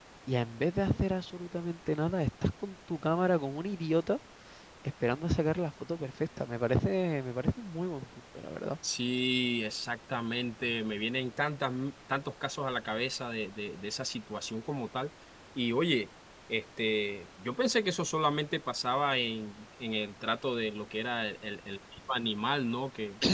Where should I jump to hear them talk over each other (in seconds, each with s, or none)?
none